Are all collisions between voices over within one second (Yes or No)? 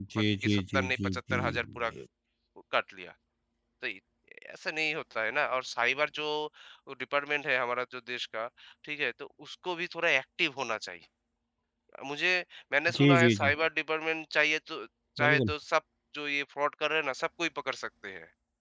No